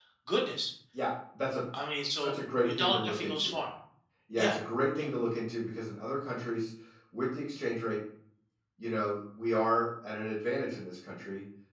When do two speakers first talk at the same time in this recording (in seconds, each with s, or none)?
2.1 s